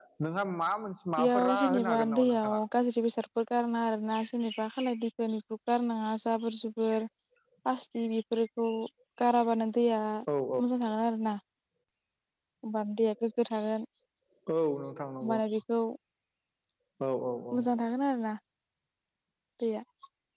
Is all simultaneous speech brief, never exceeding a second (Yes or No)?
No